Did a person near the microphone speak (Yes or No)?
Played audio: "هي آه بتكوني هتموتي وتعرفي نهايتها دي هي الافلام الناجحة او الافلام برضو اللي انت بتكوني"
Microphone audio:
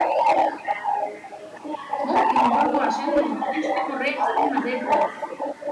Yes